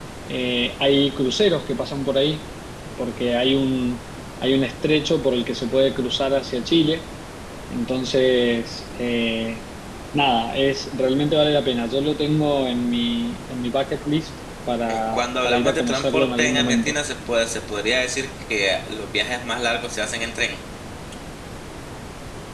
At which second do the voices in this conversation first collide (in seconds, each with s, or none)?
14.9 s